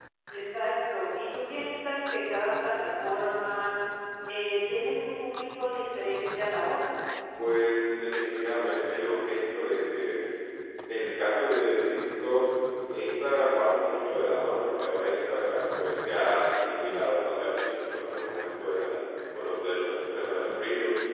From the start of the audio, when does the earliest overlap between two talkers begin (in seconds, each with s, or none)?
none